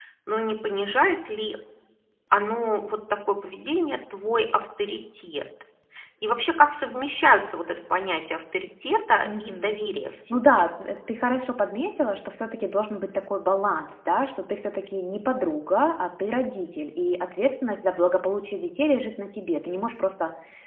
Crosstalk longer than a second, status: none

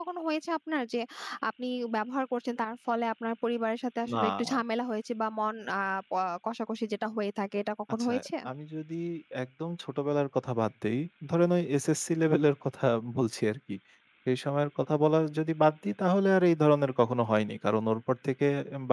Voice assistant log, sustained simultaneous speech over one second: none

